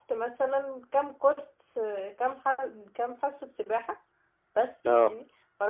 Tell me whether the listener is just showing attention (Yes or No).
Yes